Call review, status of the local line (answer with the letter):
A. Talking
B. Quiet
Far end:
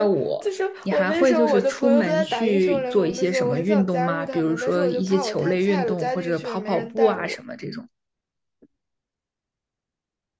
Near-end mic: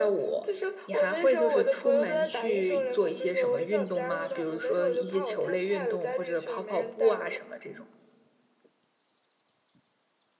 B